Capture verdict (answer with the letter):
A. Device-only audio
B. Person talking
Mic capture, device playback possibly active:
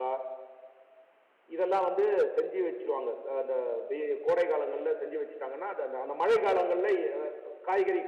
B